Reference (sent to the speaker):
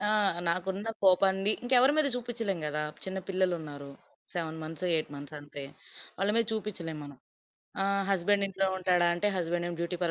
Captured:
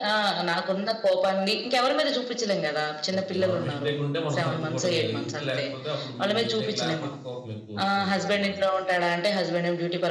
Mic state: both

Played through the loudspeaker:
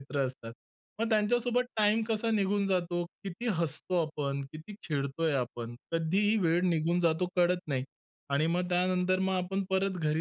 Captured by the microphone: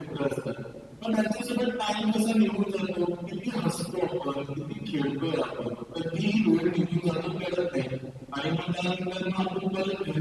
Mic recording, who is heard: echo only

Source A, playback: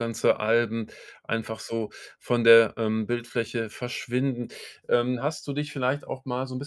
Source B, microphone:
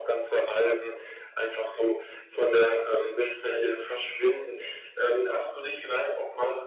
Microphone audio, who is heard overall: echo only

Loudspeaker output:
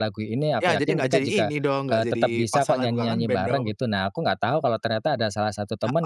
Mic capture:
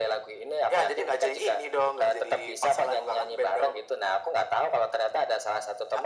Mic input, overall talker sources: echo only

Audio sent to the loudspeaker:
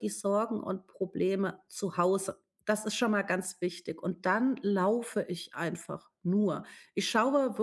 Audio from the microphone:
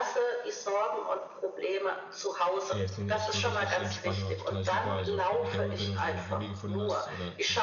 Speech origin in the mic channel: both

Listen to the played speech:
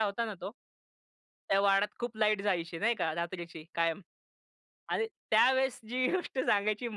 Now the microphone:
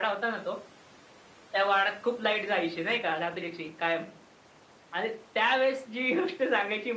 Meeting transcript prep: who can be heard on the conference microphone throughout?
echo only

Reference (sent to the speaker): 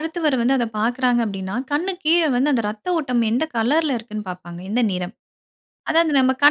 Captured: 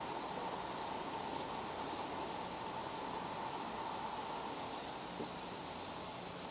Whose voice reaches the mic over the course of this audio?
neither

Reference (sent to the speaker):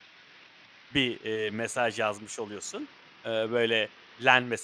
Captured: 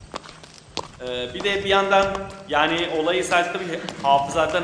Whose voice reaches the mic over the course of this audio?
user only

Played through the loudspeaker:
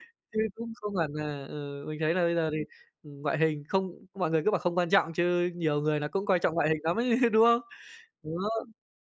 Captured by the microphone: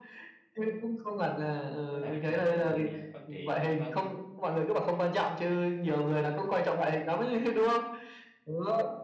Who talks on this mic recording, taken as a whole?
both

